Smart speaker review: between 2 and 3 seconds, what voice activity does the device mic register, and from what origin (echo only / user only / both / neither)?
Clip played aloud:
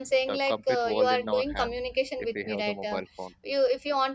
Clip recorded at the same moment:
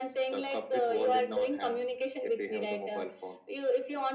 echo only